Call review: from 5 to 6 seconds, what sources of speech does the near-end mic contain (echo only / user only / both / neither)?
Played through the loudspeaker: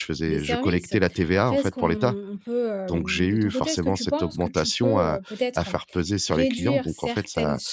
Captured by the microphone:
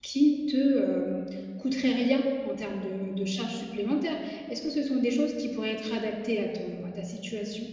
user only